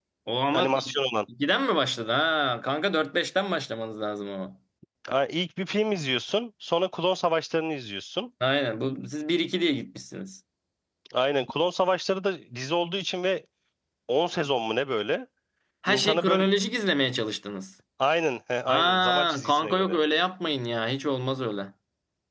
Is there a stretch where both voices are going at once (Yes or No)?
Yes